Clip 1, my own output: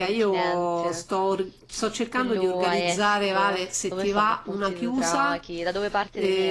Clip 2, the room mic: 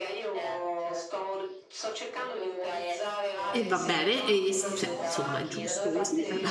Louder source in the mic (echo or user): user